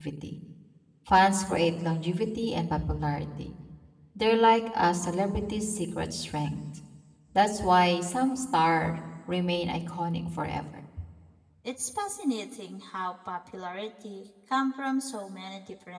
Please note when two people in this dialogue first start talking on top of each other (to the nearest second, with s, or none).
none